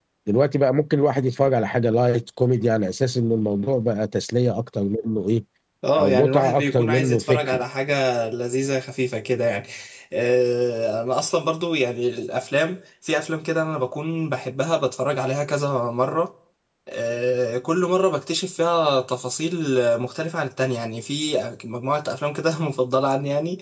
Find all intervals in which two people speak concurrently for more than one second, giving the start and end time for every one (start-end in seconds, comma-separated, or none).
6.0-7.6